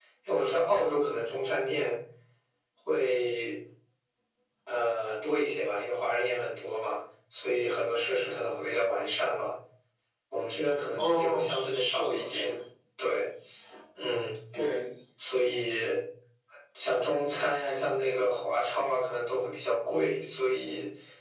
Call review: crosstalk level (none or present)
present